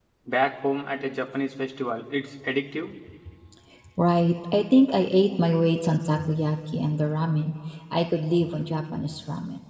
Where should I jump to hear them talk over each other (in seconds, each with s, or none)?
none